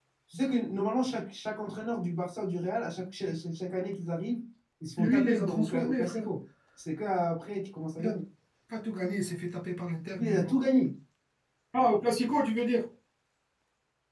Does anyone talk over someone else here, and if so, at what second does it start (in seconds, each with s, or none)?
5.0 s